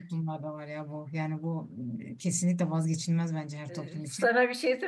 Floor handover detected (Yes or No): Yes